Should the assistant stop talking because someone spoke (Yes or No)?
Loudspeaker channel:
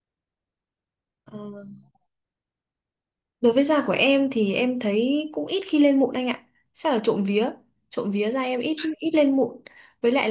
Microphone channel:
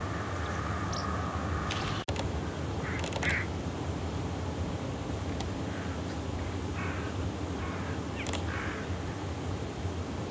No